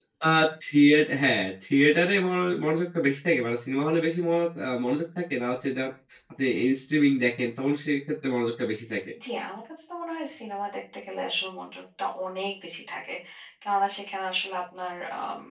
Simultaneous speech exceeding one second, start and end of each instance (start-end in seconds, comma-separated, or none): none